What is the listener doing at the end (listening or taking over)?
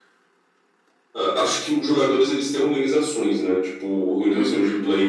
listening